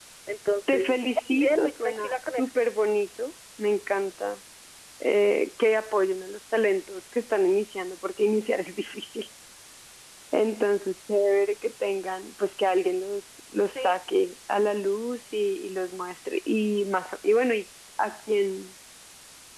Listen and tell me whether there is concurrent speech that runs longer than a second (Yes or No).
Yes